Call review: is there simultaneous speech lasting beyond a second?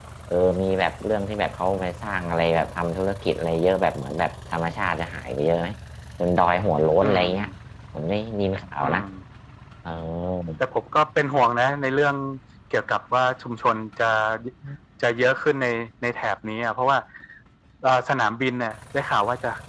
No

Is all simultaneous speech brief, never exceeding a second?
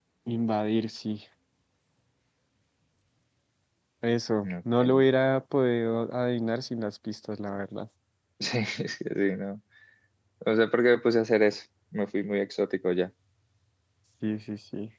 Yes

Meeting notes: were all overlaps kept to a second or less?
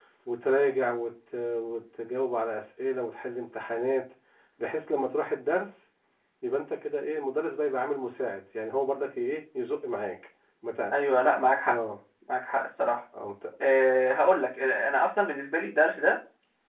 Yes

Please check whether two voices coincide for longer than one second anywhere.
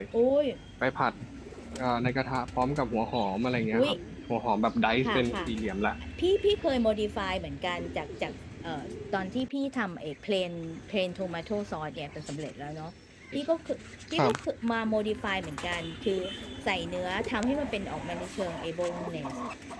No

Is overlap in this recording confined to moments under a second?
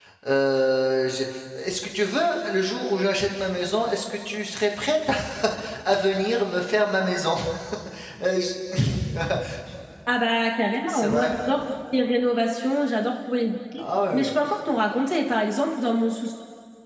Yes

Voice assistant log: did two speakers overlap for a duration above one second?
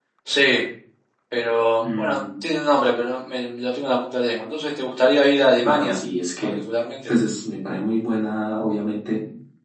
No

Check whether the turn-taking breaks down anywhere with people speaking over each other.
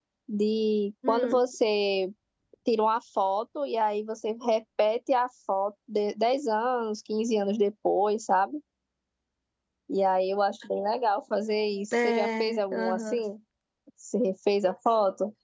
Yes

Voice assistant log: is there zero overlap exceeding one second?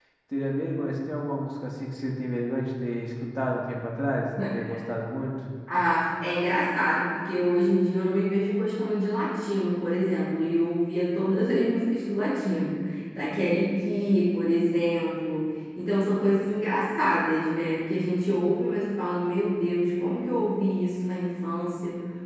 Yes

